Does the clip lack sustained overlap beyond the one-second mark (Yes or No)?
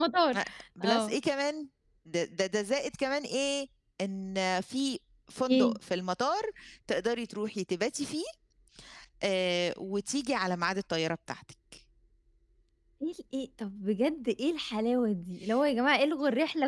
Yes